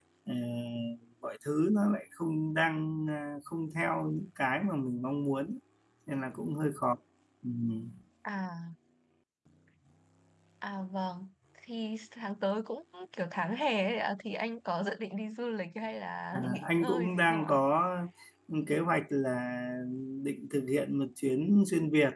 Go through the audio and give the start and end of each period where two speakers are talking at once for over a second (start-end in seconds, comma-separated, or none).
16.3-17.6